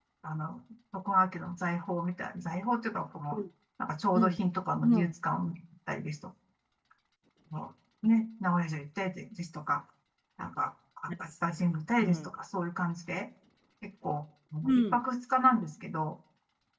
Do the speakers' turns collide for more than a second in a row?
No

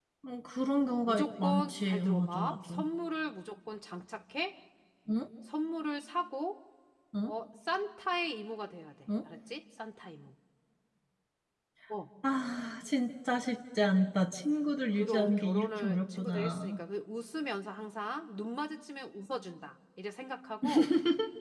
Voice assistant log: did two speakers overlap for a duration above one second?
Yes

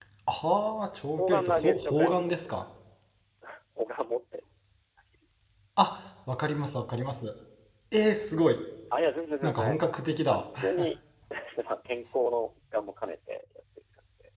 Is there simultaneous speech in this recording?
Yes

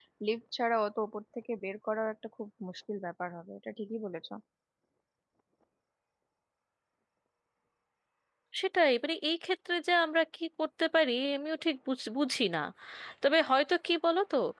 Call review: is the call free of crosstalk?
Yes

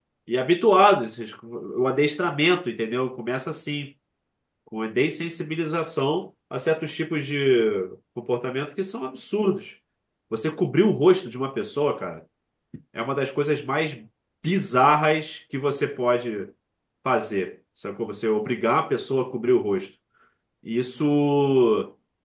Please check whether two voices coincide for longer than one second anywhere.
No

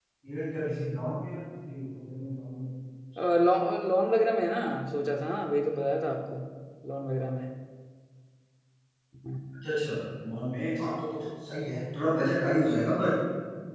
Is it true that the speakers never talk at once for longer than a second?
Yes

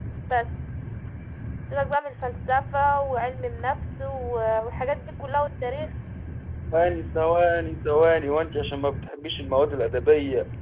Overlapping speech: No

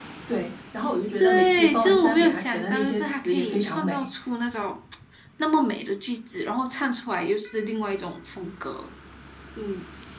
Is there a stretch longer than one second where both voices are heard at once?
Yes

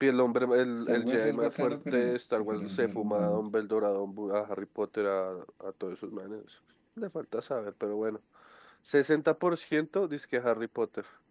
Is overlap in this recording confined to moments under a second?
No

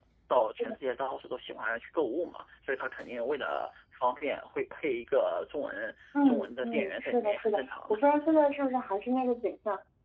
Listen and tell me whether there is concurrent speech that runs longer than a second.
Yes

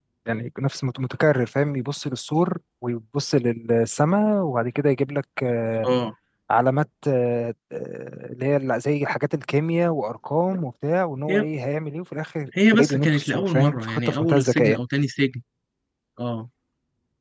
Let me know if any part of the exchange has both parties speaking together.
Yes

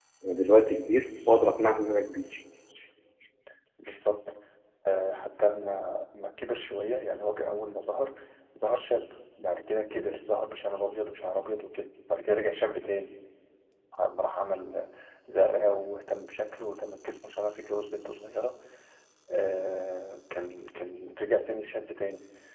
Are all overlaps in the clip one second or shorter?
Yes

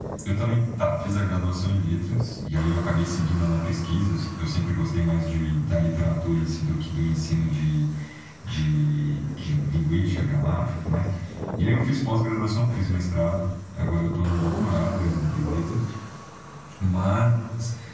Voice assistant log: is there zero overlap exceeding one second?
No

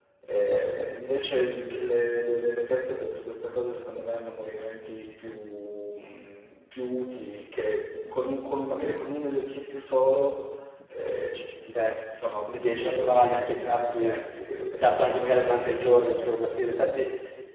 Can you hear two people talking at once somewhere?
Yes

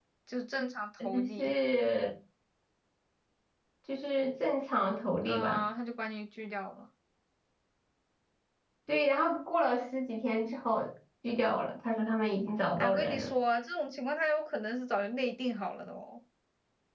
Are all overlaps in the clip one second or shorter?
Yes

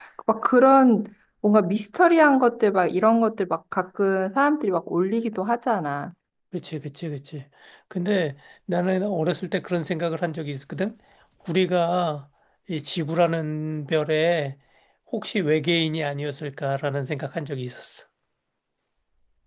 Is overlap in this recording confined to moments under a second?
Yes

